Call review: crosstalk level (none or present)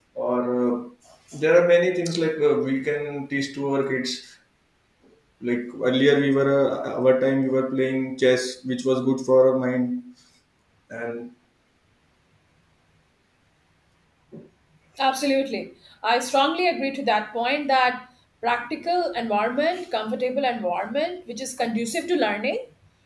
none